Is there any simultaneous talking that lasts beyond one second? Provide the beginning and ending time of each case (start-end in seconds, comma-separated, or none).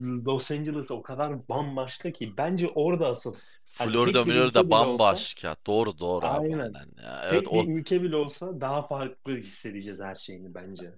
3.8-5.2